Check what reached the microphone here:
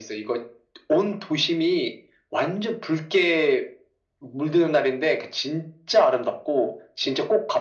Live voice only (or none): none